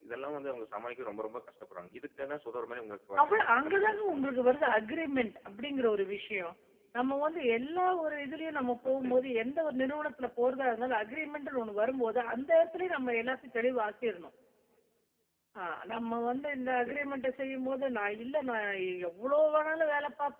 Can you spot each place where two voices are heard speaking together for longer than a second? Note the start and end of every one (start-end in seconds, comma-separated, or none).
3.2-4.5